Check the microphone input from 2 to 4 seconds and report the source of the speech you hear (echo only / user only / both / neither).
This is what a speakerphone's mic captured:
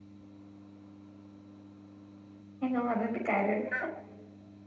user only